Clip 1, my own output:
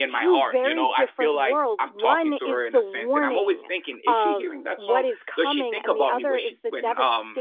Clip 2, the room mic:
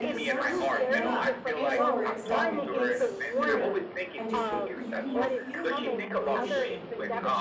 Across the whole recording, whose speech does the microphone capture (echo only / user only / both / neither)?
both